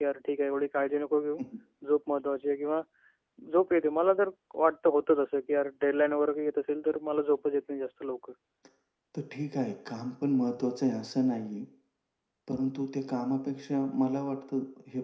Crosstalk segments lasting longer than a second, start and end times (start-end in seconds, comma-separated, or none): none